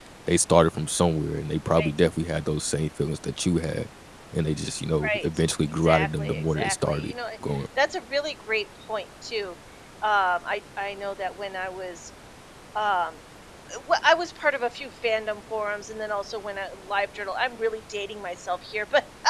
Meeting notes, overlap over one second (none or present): present